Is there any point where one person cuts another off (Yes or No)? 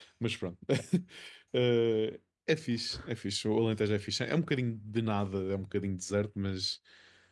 No